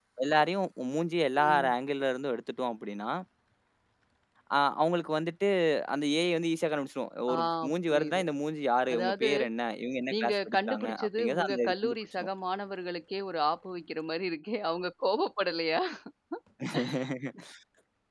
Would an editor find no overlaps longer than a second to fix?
No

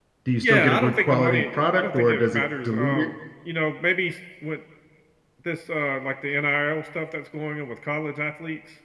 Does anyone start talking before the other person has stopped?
Yes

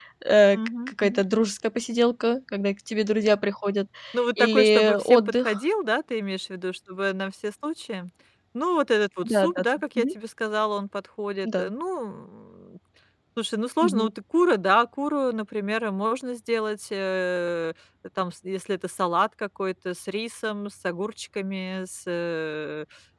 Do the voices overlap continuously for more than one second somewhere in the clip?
Yes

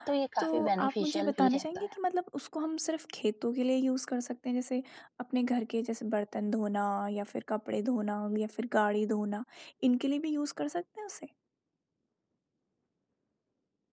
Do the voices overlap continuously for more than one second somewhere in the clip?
Yes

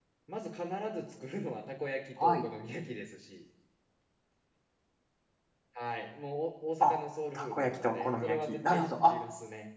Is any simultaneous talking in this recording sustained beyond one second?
Yes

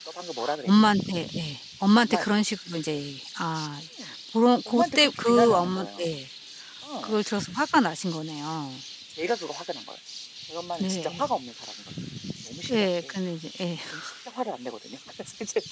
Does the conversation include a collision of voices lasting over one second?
Yes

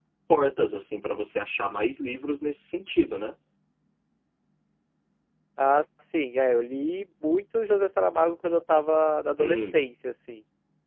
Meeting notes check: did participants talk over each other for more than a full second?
No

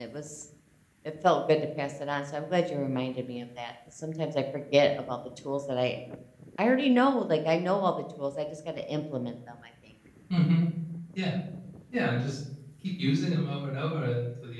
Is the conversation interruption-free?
Yes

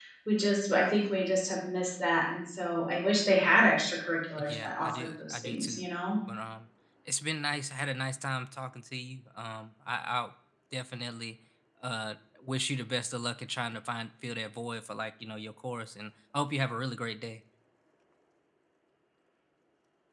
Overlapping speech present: Yes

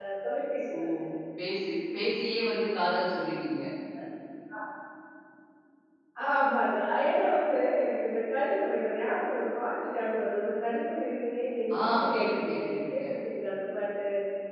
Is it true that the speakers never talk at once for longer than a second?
No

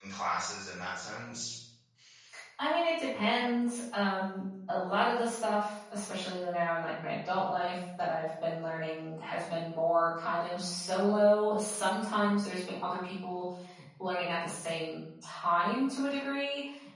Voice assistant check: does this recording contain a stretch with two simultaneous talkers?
No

